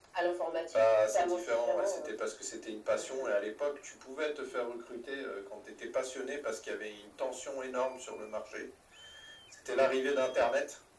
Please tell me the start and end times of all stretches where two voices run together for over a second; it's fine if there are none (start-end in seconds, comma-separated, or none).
0.7-2.1